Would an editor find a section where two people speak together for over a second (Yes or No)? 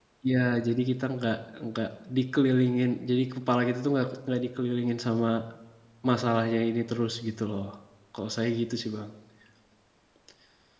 No